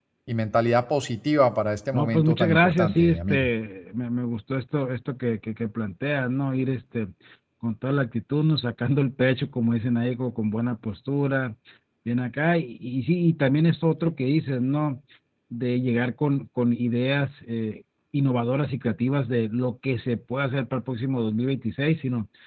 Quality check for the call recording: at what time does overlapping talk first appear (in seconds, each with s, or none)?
1.9 s